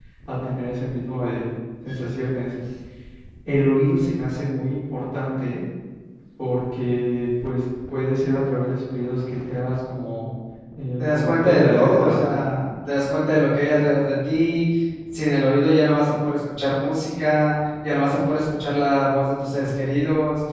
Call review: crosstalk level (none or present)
present